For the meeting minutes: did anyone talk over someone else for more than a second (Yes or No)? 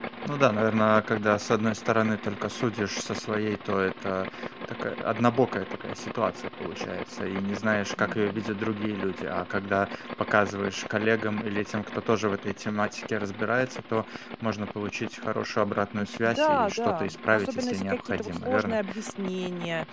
Yes